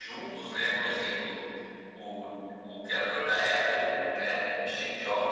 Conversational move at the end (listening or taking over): listening